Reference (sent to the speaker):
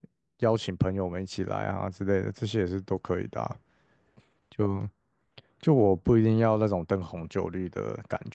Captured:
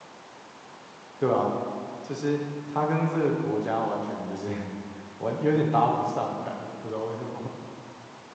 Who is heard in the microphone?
user only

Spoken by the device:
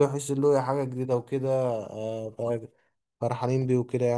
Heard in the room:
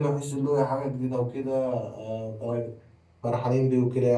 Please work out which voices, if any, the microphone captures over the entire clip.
echo only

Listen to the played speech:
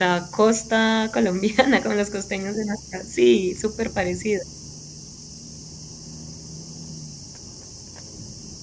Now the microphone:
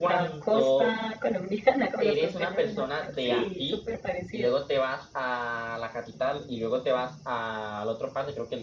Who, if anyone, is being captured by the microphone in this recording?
both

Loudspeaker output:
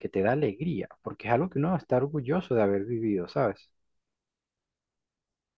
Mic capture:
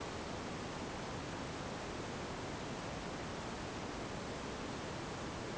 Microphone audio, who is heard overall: neither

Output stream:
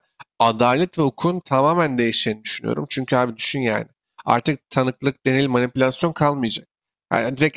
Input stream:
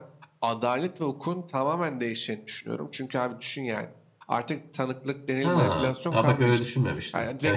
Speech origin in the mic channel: both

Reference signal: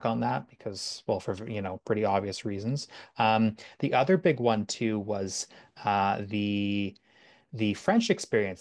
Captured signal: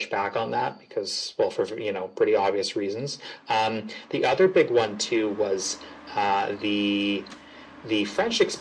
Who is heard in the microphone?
echo only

